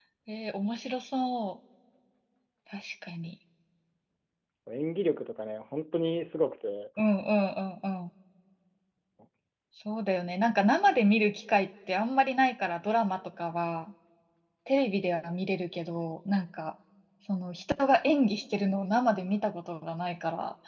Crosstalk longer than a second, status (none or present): none